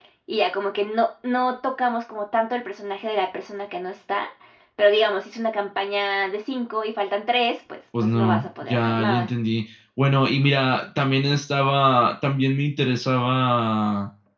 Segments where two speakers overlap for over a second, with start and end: 8.0-9.3

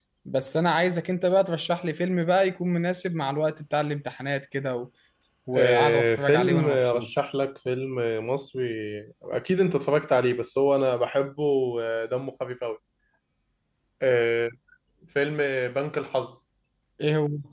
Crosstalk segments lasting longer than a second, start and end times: 5.5-7.1

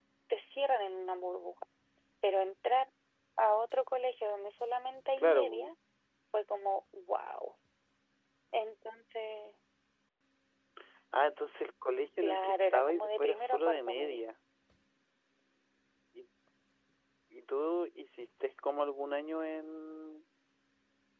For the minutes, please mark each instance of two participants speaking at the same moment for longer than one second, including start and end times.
12.2-14.2

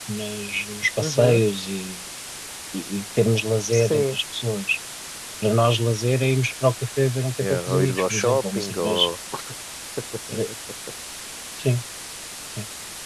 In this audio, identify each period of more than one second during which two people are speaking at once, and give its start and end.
7.4-9.1

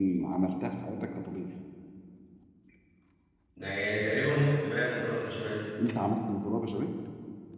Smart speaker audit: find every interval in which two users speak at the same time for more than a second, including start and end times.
none

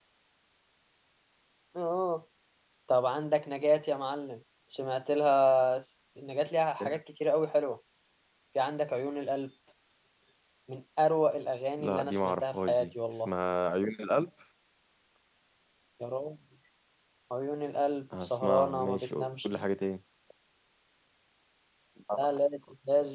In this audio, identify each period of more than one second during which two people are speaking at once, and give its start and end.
11.8-13.3, 18.2-19.6

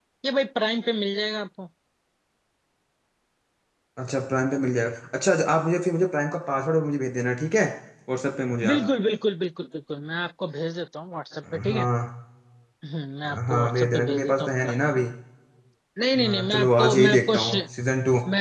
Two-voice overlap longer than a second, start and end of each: 13.5-14.8, 16.2-17.6

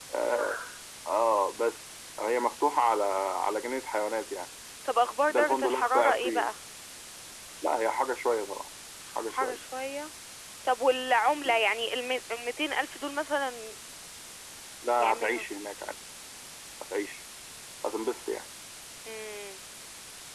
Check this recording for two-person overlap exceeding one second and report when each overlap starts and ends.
5.3-6.5

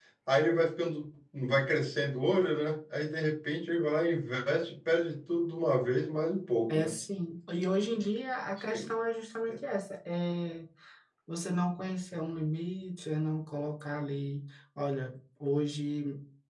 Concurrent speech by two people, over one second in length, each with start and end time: none

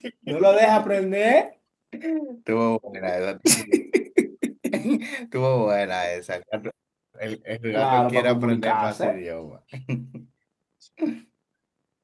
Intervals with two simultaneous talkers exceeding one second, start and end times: 7.7-9.2

